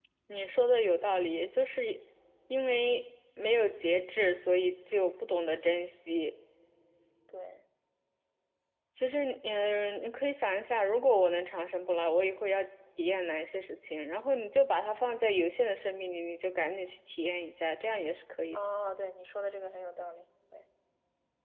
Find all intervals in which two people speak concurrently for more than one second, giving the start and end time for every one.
none

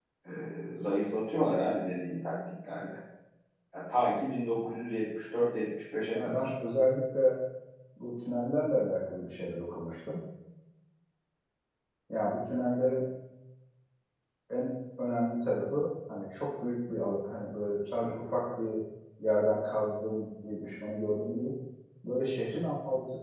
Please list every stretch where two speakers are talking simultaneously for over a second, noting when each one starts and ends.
none

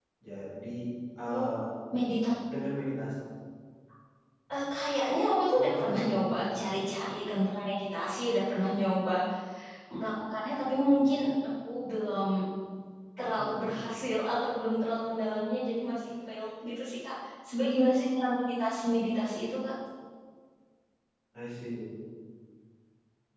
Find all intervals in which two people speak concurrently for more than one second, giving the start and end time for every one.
5.6-6.8

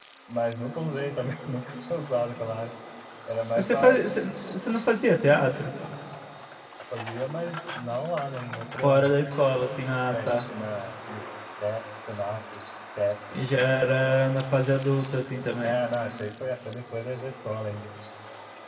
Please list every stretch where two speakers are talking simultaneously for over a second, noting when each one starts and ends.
none

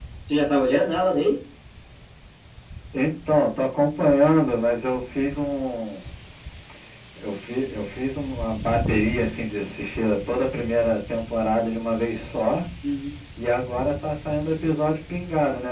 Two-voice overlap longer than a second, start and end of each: none

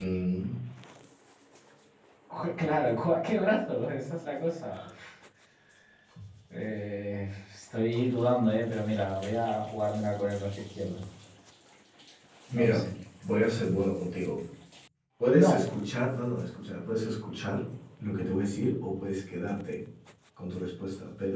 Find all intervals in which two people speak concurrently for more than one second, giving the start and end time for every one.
none

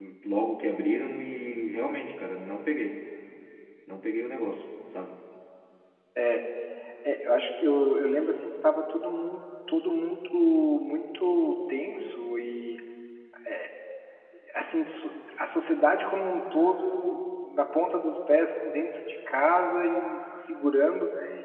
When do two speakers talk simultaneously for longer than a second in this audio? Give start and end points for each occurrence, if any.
none

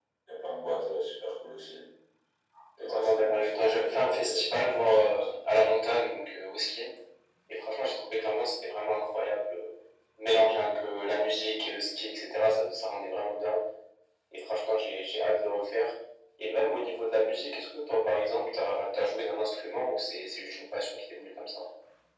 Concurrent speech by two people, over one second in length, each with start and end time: 2.8-5.3

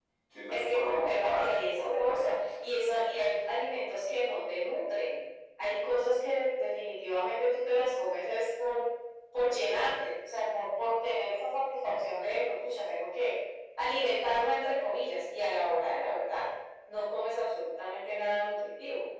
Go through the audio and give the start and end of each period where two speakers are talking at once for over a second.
0.5-2.3

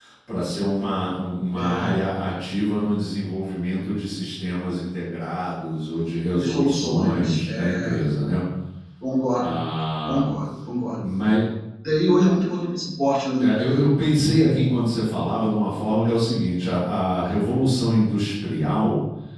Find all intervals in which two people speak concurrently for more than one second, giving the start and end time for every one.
6.3-7.9

